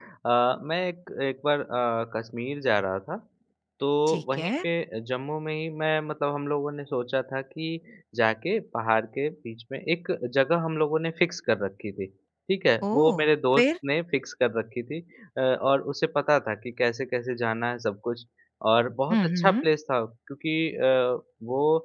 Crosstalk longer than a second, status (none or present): none